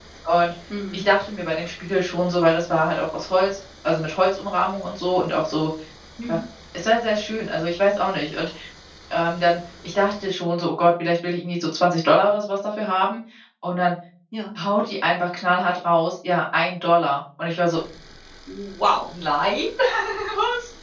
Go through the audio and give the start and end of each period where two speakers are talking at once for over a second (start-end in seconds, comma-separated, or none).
none